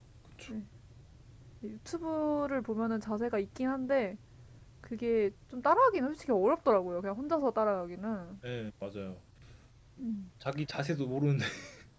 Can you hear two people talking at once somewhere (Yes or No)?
No